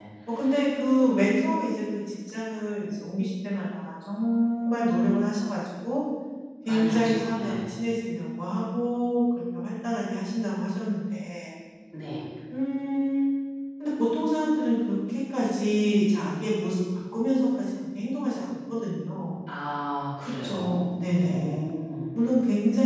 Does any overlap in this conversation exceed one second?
Yes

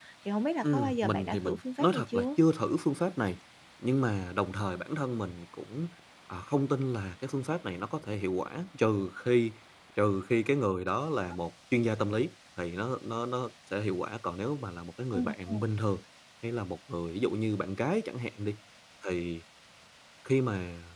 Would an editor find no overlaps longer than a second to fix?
No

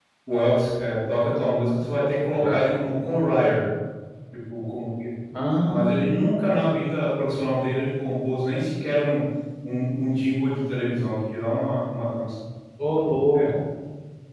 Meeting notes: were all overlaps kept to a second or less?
Yes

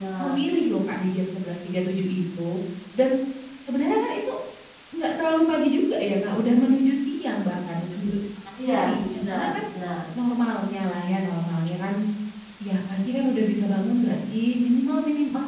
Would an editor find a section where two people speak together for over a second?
No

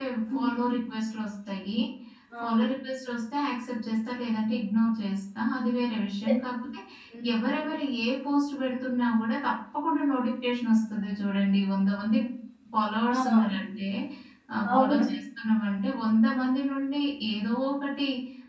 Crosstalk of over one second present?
No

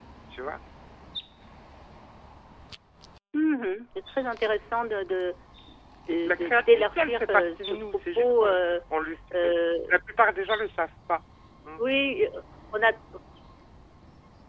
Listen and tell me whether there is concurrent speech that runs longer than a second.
Yes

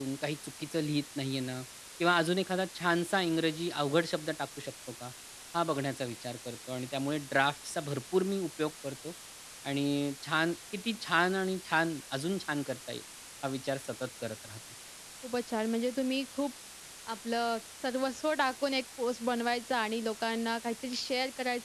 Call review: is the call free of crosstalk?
Yes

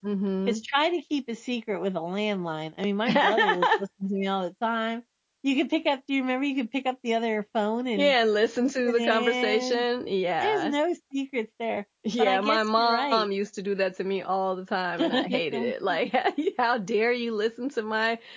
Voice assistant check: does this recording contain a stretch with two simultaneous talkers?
Yes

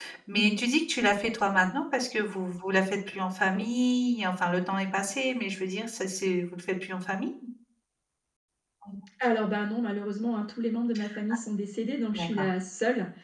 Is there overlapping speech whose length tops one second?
No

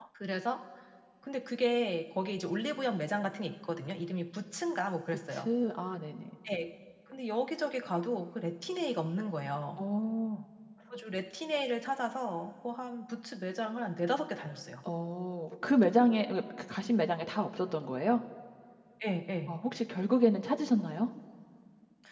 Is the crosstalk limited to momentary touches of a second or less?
Yes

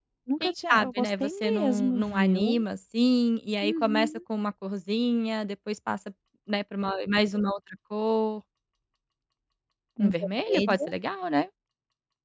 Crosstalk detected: Yes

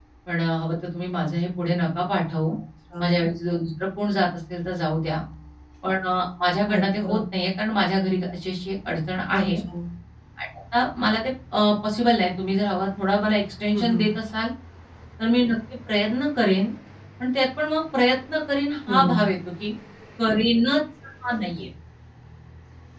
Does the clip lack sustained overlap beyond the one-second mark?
Yes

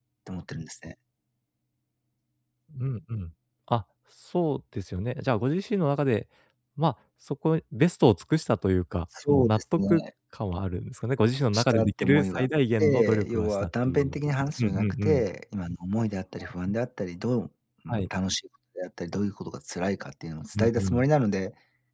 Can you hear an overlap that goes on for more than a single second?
Yes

